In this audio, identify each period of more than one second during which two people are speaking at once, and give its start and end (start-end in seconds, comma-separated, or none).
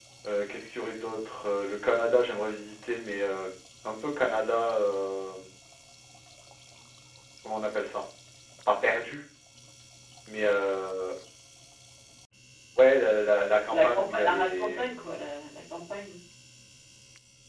13.8-15.1